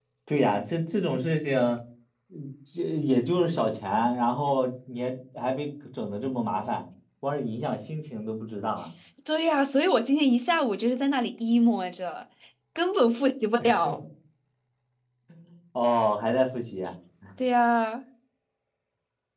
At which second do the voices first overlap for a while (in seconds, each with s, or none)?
none